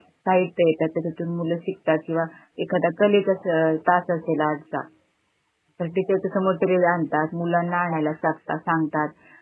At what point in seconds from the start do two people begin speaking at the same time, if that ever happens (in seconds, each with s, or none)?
none